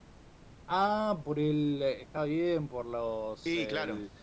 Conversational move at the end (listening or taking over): listening